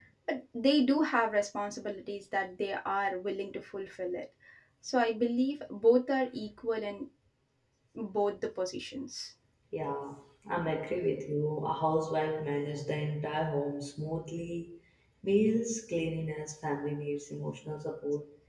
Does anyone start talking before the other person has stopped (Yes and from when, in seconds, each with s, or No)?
No